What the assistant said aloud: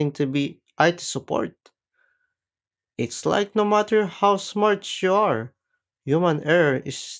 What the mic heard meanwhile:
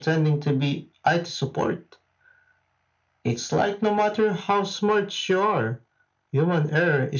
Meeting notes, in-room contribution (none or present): none